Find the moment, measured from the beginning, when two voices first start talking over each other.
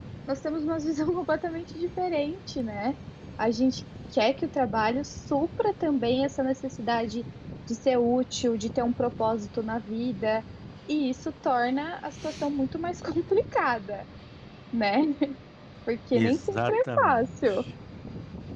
16.1 s

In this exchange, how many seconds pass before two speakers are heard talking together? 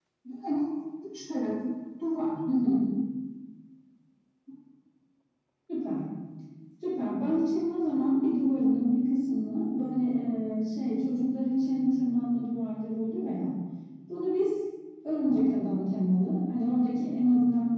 none

